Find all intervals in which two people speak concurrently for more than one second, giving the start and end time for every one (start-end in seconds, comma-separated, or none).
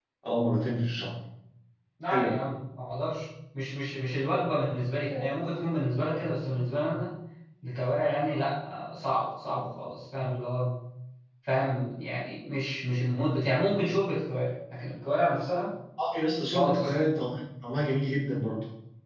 none